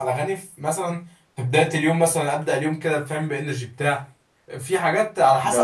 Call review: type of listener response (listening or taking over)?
listening